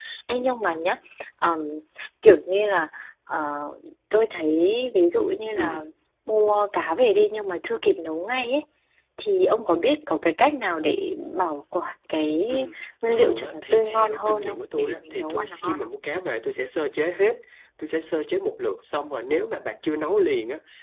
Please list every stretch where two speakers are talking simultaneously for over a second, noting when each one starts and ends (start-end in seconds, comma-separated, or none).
13.1-15.9